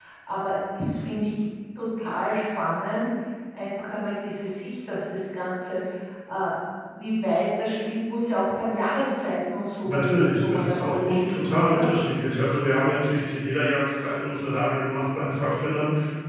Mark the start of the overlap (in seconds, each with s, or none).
9.8 s